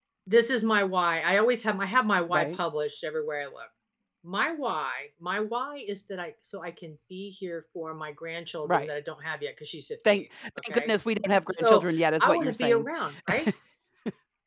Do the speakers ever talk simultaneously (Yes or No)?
Yes